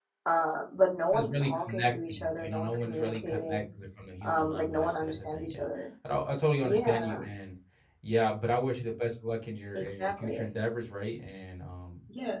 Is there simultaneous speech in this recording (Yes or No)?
Yes